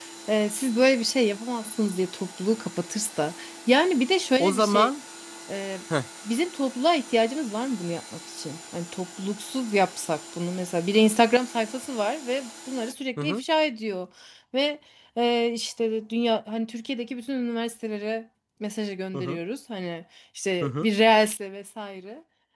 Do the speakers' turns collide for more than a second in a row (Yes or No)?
No